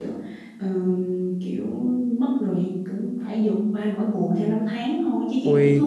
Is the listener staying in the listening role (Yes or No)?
No